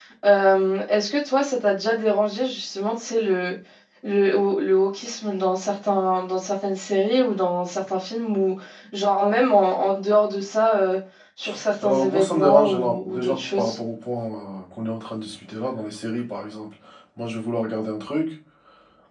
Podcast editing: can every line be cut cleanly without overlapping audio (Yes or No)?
No